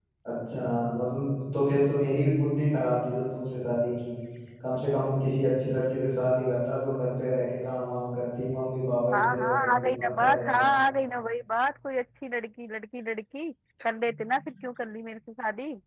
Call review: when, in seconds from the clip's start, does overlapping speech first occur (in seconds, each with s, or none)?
9.1 s